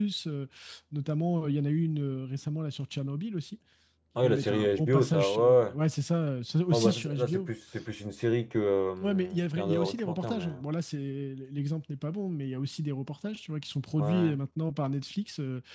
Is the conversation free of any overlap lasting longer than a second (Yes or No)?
No